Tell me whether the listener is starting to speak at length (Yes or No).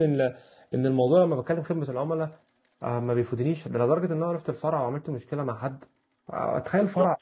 Yes